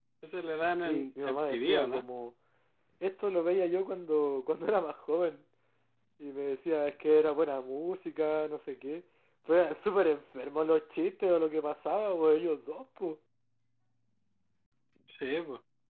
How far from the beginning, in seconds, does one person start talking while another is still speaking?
0.8 s

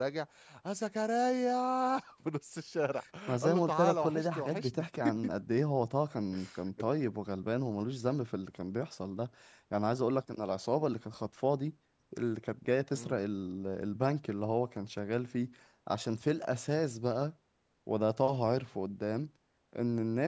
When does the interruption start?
3.4 s

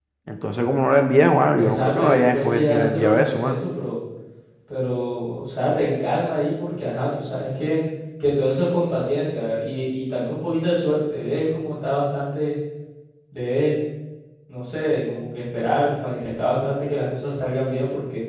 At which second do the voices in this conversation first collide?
1.6 s

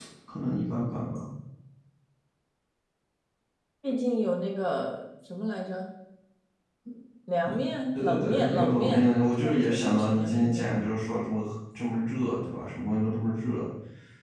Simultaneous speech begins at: 7.9 s

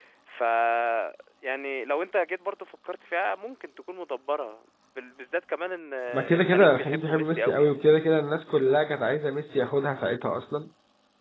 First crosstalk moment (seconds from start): 6.3 s

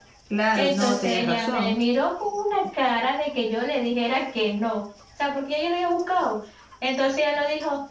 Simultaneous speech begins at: 0.5 s

